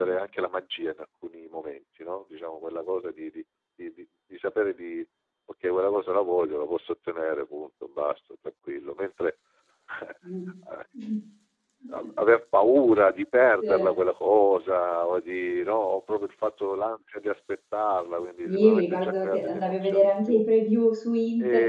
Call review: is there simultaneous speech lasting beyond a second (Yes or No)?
Yes